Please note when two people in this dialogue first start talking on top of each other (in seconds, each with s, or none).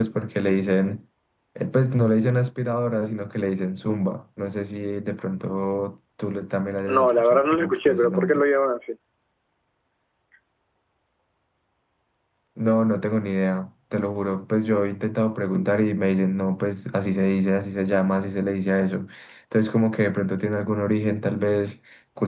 6.9 s